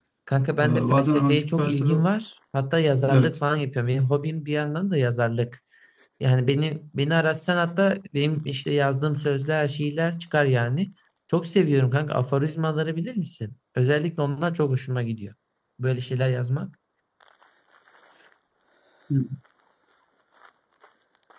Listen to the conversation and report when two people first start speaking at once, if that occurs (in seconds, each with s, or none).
0.6 s